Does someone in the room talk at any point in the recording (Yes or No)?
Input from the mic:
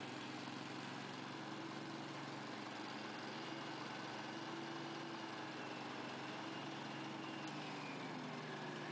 No